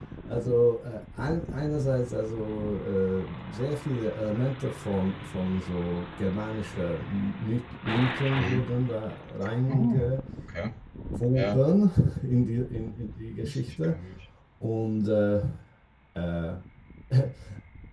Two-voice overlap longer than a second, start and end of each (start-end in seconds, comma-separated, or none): none